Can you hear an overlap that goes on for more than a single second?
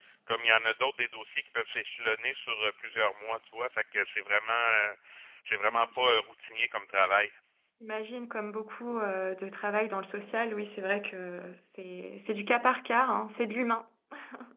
No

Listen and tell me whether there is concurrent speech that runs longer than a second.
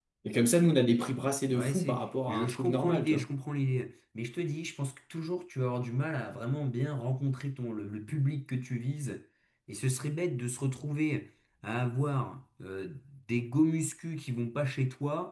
Yes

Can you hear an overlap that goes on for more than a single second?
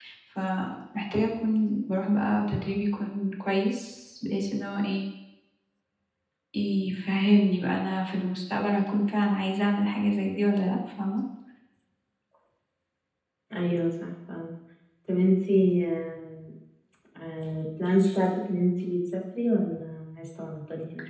No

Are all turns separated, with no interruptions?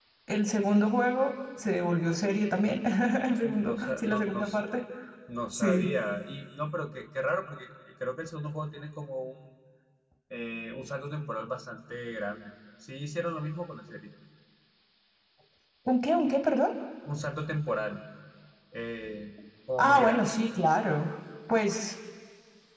No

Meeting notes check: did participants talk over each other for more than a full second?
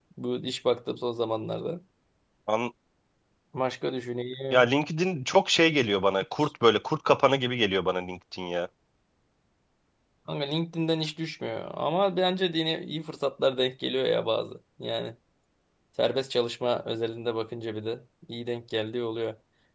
No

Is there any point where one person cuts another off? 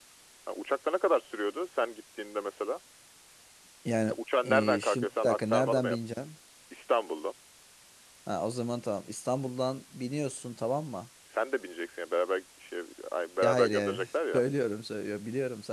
Yes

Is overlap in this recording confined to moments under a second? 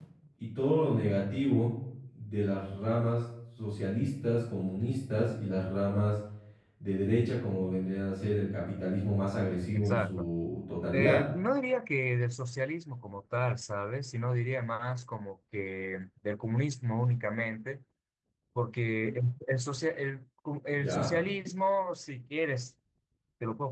Yes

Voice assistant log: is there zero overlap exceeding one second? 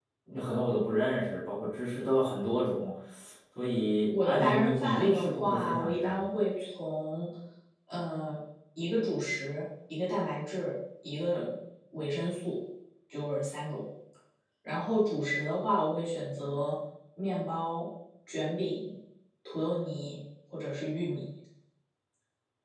No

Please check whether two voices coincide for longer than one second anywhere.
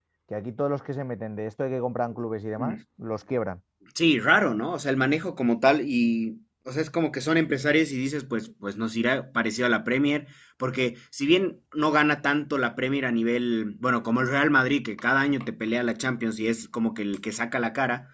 No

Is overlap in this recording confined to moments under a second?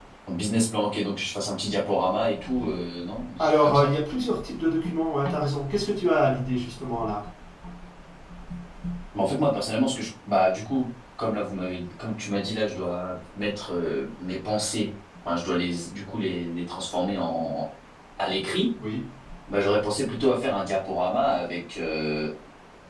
Yes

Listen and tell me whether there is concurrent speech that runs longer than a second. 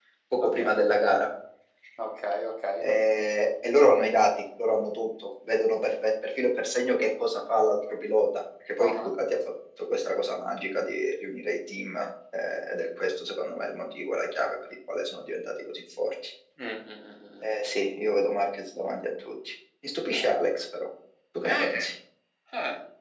No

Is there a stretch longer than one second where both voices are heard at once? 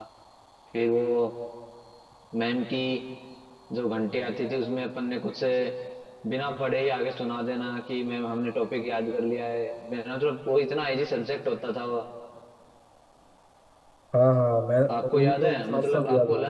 Yes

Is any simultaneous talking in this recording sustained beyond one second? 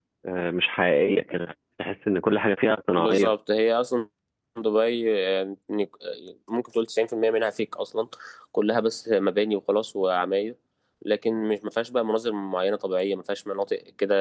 No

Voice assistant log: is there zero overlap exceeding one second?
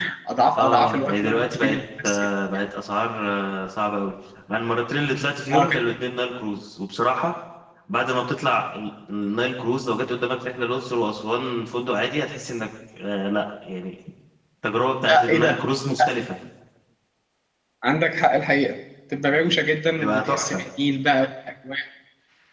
No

